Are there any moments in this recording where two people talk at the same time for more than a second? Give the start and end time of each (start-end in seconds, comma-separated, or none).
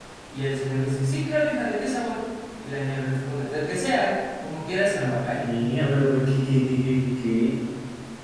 none